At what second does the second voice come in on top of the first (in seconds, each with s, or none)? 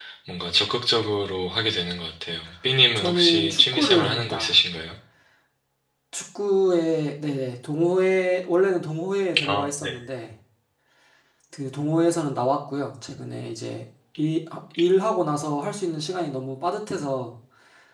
3.0 s